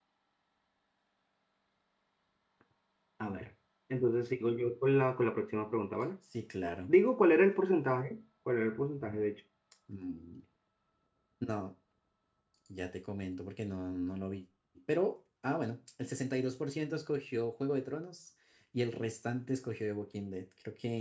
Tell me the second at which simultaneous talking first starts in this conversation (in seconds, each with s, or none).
none